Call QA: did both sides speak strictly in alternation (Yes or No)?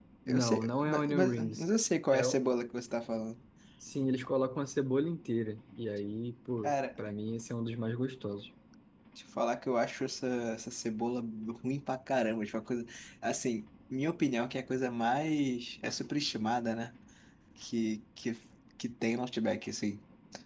No